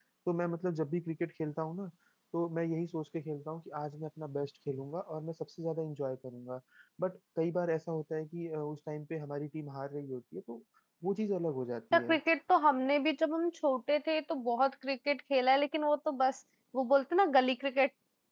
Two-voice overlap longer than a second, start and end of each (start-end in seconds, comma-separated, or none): none